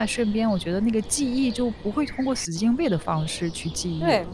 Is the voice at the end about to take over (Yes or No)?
Yes